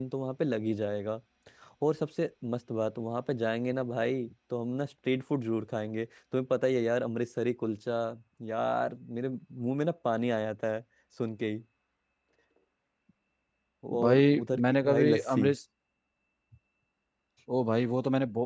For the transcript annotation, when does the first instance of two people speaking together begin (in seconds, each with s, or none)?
14.0 s